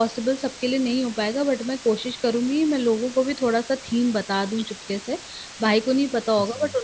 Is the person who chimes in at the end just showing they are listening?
Yes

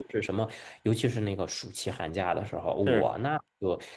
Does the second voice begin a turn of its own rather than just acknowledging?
No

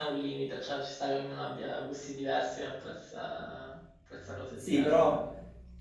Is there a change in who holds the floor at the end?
Yes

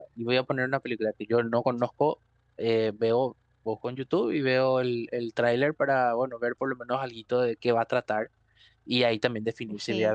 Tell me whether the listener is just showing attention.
Yes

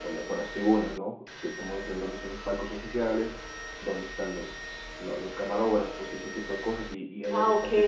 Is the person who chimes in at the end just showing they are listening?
Yes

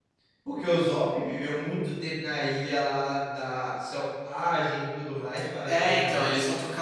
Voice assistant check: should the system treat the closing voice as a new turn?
Yes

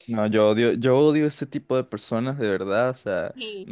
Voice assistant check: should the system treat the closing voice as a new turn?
No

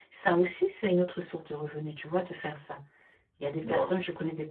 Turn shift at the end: No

